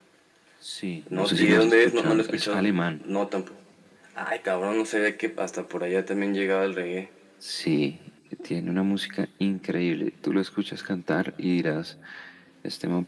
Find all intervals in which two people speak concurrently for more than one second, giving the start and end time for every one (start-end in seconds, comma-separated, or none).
1.1-2.6